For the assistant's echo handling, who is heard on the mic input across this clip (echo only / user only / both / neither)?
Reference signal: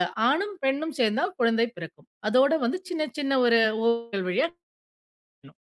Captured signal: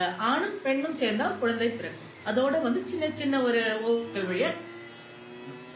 echo only